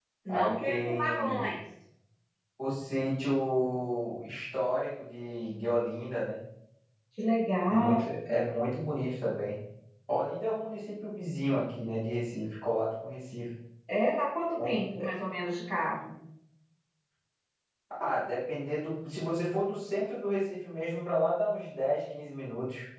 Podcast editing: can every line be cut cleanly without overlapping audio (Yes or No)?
No